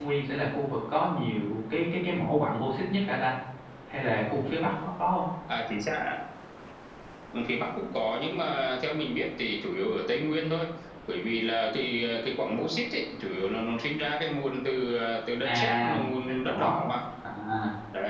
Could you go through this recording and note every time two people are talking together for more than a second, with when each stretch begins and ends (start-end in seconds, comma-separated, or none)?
15.4-16.8